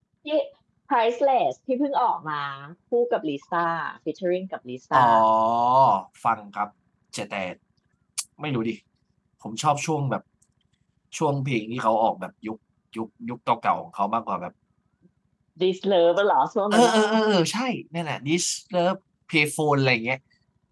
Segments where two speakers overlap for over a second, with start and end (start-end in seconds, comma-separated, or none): none